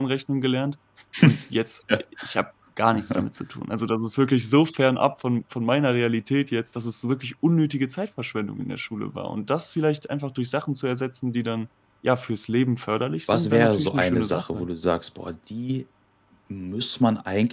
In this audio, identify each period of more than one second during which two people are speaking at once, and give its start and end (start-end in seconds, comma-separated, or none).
13.3-14.7